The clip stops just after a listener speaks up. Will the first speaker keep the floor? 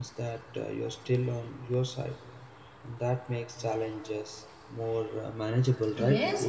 No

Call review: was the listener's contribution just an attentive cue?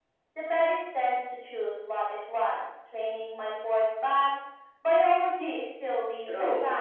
No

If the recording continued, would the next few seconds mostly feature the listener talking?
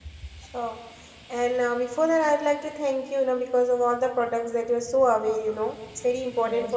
No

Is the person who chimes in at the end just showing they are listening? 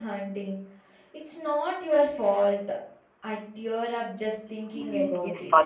No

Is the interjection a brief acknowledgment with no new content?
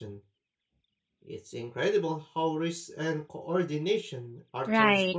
No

